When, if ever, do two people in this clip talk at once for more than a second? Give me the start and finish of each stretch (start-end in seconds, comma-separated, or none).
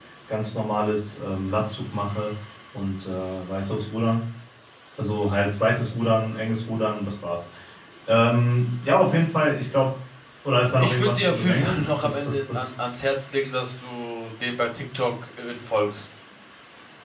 10.8-12.6